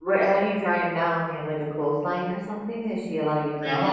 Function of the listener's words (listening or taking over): taking over